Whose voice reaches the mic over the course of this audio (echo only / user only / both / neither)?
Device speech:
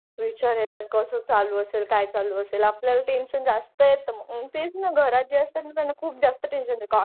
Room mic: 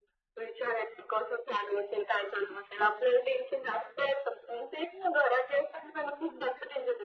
echo only